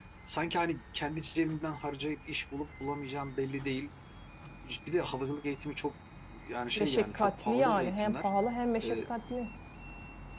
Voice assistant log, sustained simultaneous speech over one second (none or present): present